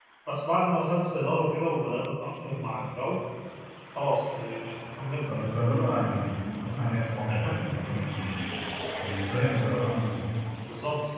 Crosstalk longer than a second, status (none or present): none